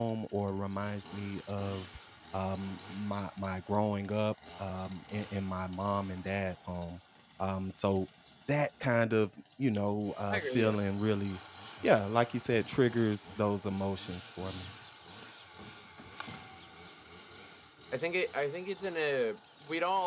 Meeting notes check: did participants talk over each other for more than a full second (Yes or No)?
No